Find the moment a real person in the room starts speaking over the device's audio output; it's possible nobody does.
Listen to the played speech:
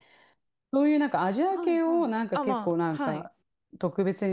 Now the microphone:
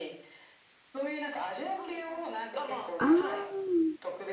3 s

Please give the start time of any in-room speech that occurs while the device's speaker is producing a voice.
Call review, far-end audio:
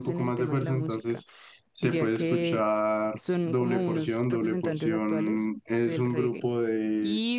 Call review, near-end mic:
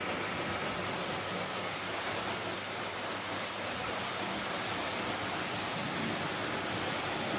none

